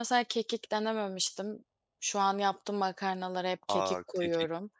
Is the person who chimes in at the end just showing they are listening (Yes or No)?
No